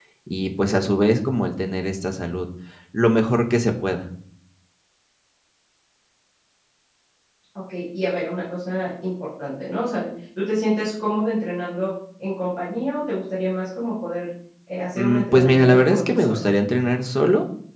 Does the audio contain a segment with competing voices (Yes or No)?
Yes